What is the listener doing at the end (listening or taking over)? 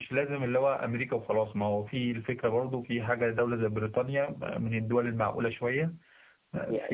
taking over